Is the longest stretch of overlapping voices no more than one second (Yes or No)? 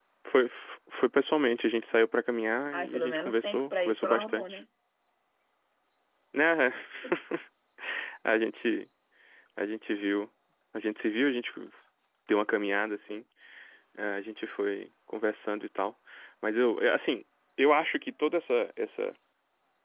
No